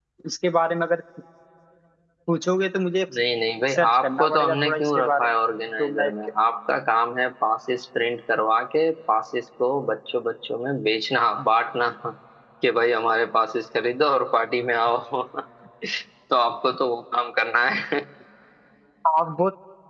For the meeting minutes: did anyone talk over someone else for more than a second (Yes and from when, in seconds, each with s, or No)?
Yes, from 3.7 s